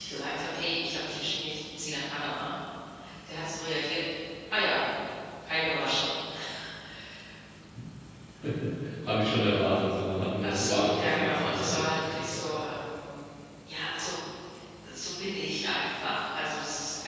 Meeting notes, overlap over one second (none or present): present